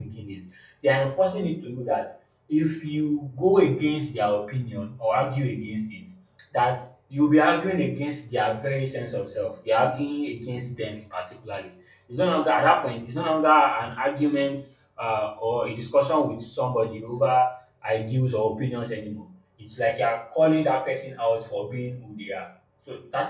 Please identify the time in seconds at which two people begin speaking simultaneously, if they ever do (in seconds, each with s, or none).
none